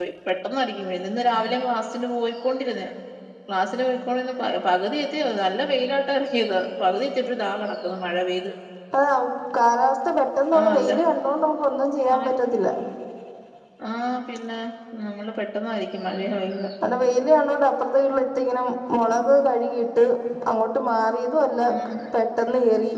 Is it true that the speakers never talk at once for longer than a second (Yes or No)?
Yes